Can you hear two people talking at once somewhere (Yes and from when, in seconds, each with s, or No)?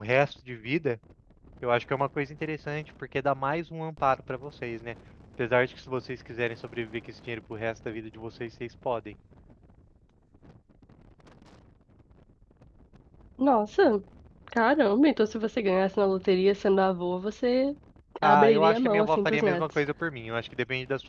Yes, from 18.2 s